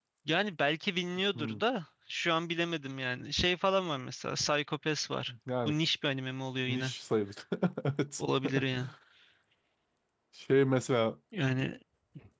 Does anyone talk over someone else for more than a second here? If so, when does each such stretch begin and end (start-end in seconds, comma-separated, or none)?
none